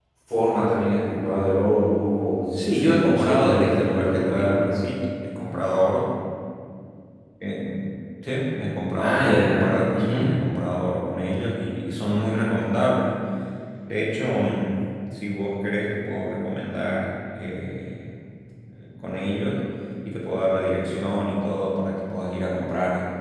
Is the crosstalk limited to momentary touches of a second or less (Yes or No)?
No